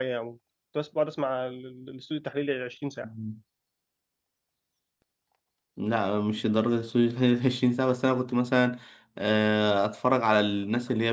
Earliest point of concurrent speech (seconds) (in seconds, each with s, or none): none